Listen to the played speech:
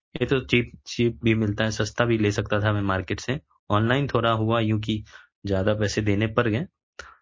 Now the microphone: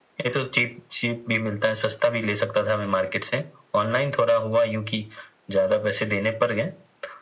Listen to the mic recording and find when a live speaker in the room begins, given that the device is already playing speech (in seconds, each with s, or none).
none